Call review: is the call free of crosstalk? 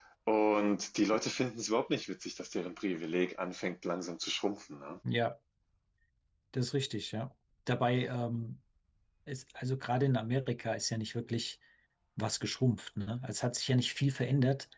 Yes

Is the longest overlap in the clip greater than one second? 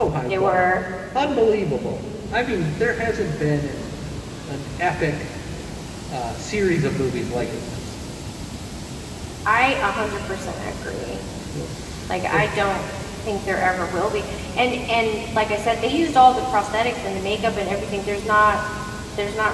No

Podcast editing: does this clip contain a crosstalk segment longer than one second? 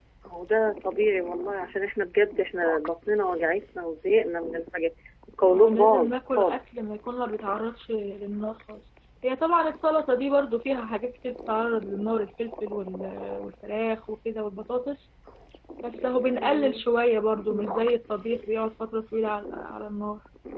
Yes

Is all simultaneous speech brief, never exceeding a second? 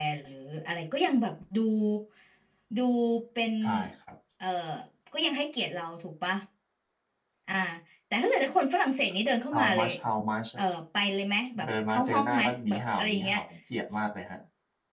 No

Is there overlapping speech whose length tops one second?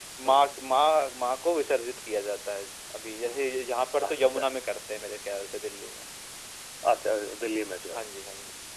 No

